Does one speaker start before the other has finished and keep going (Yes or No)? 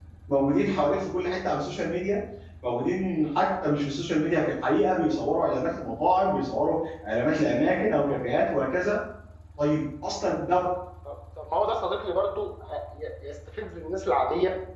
No